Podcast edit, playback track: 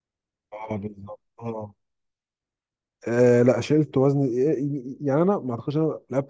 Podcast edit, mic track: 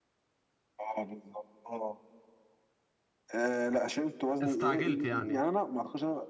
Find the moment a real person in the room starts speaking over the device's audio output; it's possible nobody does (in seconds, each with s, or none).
4.4 s